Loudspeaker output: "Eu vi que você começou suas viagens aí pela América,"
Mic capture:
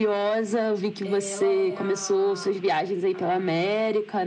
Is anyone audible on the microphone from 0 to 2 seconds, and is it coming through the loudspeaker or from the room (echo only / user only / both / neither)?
both